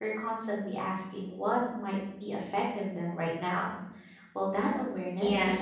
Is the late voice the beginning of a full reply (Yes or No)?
Yes